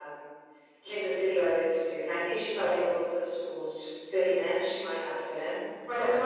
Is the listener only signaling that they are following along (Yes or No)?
No